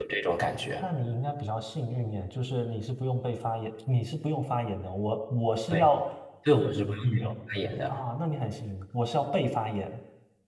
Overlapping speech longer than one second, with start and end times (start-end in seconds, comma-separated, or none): none